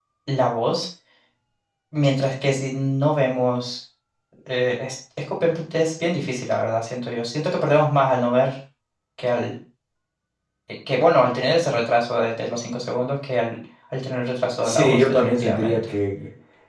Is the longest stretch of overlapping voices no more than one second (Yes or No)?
No